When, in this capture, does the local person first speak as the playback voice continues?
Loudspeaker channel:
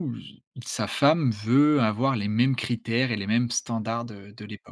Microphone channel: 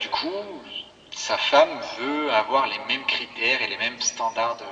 none

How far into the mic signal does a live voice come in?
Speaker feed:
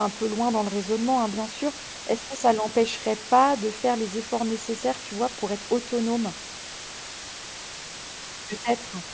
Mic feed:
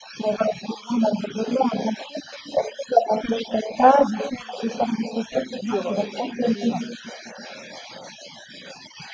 5.3 s

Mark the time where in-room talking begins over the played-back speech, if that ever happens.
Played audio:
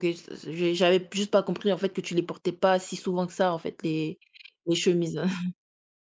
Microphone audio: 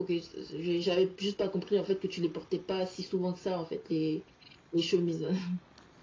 none

